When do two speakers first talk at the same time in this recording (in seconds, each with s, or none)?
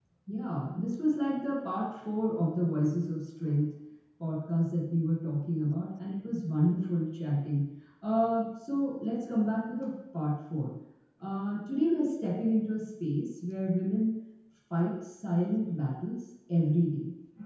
none